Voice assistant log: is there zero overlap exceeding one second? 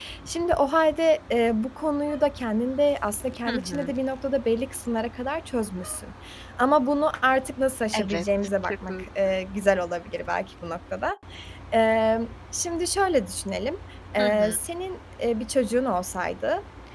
Yes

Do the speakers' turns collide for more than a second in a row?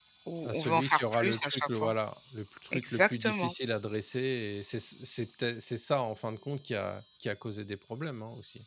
Yes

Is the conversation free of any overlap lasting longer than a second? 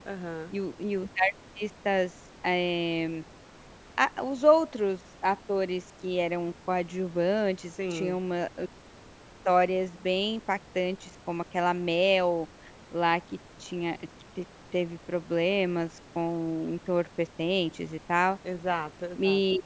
Yes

